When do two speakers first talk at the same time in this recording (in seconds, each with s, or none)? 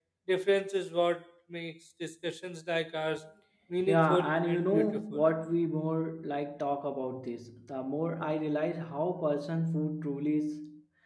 3.9 s